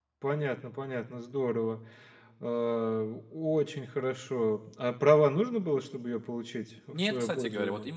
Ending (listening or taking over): taking over